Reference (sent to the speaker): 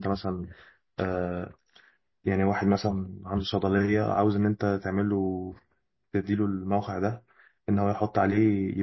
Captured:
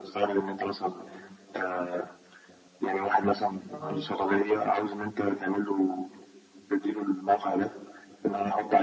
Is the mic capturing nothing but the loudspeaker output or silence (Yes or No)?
No